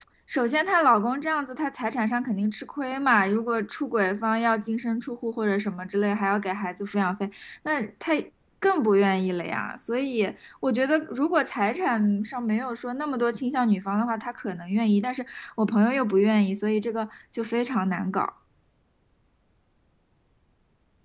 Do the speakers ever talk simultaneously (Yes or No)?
No